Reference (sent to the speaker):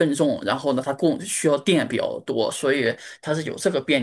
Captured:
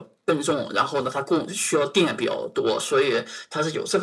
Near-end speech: none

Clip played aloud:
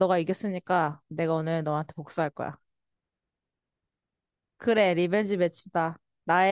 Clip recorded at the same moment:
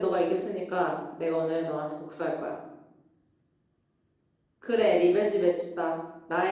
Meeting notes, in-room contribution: none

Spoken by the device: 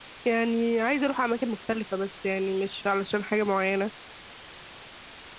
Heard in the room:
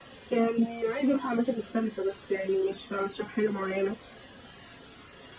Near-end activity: none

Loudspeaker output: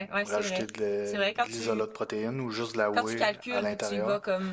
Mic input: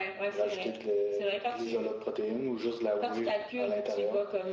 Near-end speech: none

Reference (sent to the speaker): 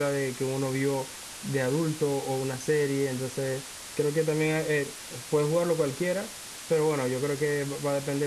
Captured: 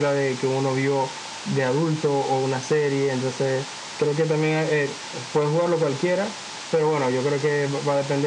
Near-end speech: none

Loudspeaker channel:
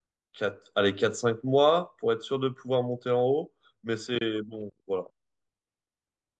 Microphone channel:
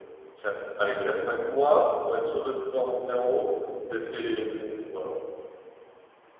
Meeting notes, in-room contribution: none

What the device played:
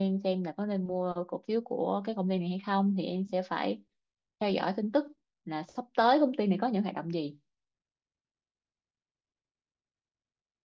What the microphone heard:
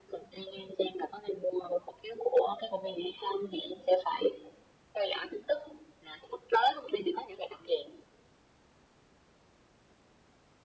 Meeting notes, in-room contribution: none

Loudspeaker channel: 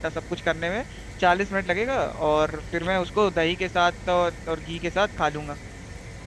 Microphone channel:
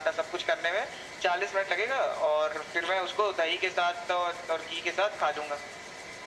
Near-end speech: none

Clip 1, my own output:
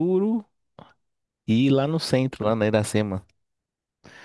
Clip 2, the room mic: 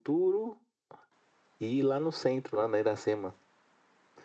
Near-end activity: none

